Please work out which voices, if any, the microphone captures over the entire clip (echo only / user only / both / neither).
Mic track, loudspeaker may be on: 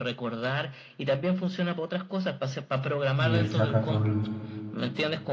both